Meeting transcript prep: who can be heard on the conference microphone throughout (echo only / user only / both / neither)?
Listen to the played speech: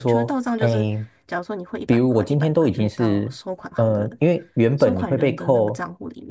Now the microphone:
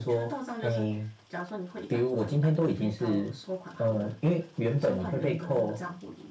echo only